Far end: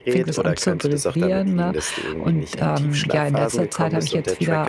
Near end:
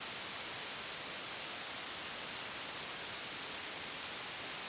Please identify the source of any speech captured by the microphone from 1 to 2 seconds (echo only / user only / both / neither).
neither